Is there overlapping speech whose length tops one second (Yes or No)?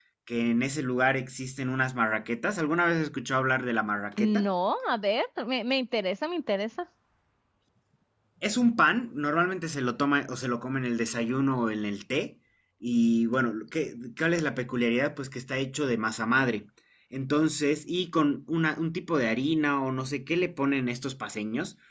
No